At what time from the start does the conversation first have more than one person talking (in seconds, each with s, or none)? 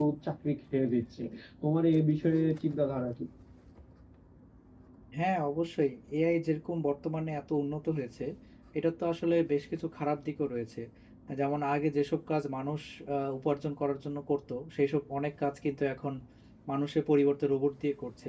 none